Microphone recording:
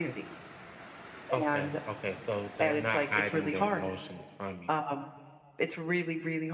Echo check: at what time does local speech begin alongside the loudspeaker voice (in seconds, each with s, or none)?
none